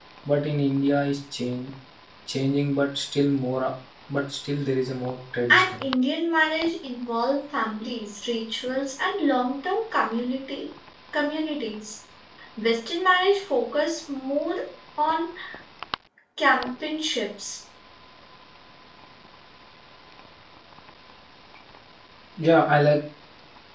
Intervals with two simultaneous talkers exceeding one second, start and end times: none

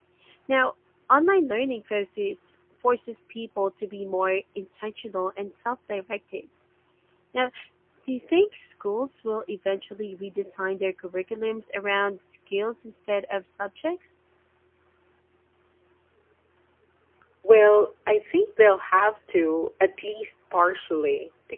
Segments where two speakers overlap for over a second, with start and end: none

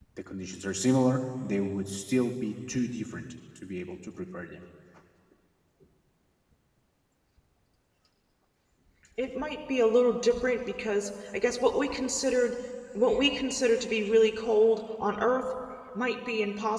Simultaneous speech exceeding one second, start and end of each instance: none

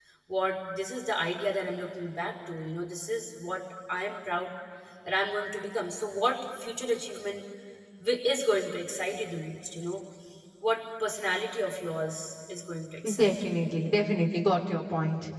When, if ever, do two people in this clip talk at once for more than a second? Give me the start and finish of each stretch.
none

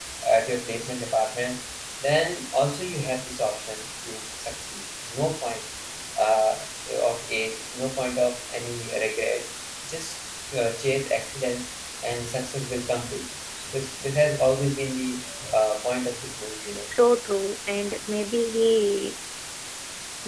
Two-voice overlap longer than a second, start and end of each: none

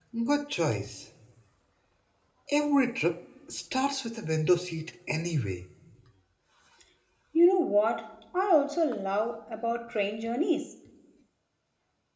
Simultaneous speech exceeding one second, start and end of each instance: none

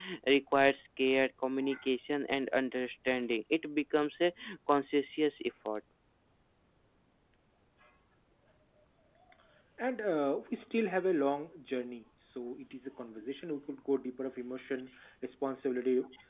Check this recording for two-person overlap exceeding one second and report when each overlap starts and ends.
none

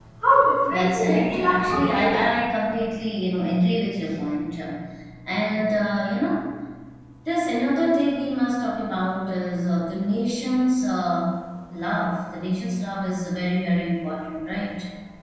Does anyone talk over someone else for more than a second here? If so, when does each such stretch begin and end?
0.7-2.2

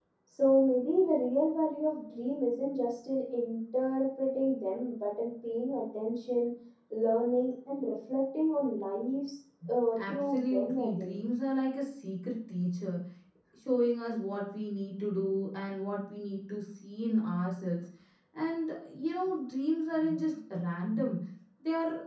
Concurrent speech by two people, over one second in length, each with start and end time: 10.0-11.2

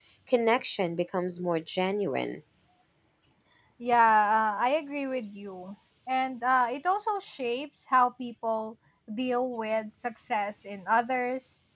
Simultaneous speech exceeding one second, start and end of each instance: none

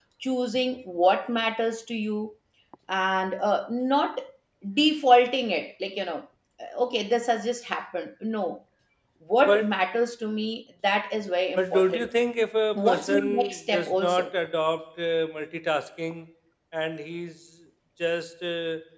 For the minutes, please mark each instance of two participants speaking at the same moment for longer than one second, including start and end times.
12.8-14.3

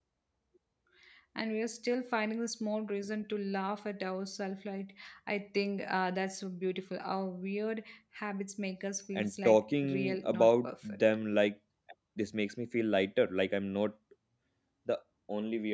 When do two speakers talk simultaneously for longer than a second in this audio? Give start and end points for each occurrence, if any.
9.2-11.0

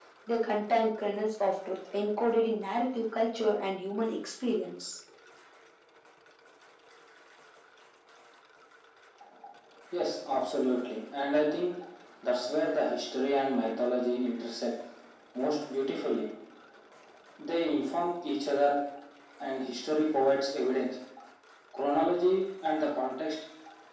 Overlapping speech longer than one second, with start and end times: none

